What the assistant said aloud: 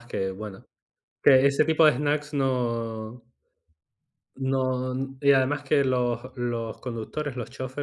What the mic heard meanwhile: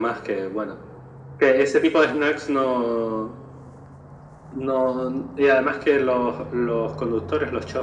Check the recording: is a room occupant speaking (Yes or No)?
No